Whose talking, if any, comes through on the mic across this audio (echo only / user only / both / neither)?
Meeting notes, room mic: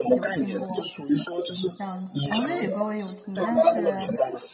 both